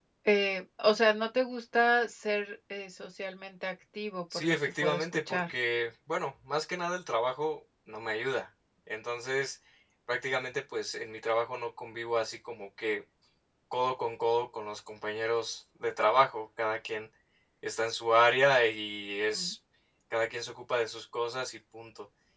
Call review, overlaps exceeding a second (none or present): present